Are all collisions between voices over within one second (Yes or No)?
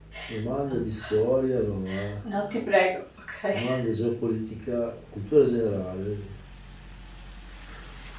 Yes